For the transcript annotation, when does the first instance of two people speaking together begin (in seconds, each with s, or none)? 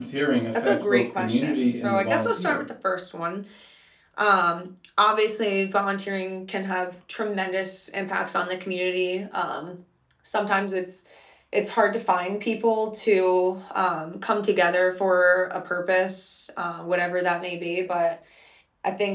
0.6 s